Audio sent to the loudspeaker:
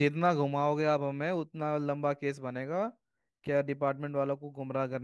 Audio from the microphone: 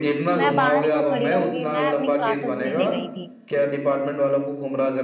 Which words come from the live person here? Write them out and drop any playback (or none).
मैं बाहर क्यों खड़ी रहूंगी मैं अपनी क्लासेस लेने गई थी